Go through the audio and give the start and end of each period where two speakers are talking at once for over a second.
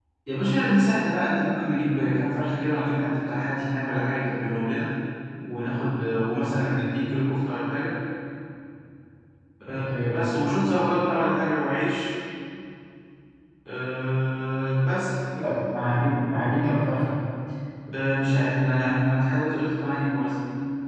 none

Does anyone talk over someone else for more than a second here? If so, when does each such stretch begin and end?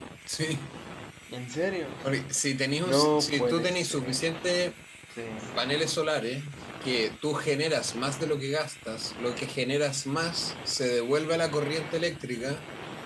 2.9-4.2

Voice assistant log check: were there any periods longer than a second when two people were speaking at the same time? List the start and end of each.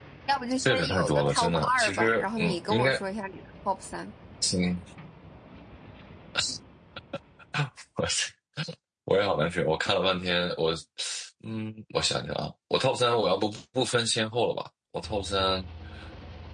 0.6-2.9

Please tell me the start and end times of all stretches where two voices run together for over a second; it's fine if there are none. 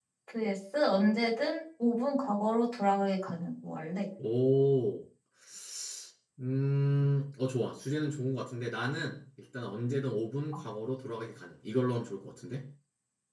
none

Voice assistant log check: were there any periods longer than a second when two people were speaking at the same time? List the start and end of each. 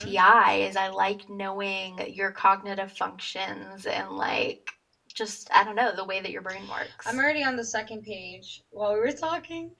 none

